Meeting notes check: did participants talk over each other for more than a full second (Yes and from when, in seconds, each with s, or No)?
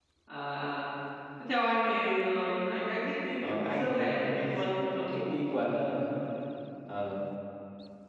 Yes, from 3.4 s